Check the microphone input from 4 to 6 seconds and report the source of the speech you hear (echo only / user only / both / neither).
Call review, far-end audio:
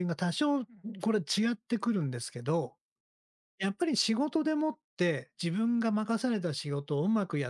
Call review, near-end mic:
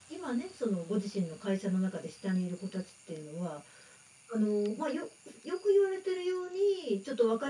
user only